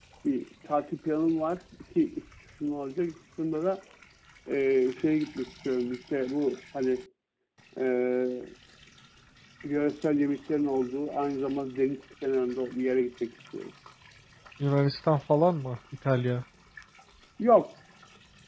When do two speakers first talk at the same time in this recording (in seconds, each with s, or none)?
none